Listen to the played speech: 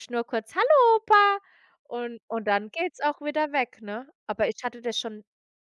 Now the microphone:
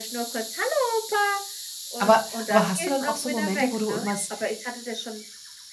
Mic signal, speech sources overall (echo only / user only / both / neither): both